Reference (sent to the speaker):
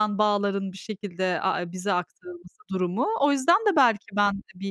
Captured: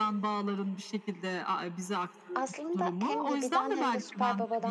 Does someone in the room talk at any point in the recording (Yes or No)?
Yes